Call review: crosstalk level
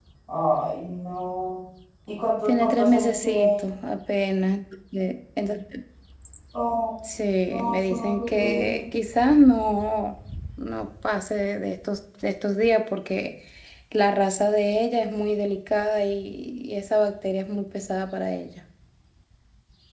present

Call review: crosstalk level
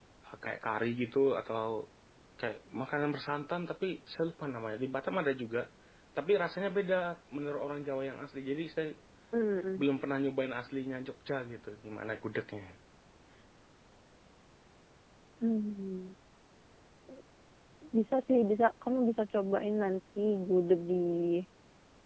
none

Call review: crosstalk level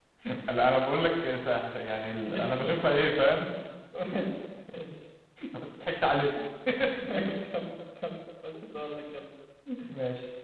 present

